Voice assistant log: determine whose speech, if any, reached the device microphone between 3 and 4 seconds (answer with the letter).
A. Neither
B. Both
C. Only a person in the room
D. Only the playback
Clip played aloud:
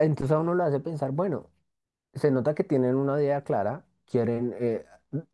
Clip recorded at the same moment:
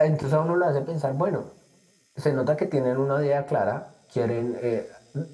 D